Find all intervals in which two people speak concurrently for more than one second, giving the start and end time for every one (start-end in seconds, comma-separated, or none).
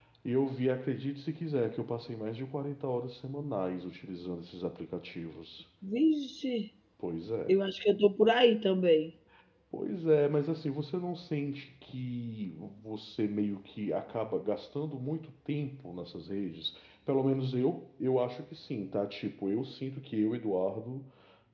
none